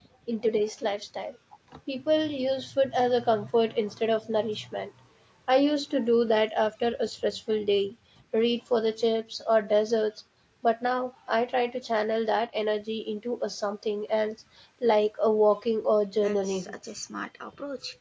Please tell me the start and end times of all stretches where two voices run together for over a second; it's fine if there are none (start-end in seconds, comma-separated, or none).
none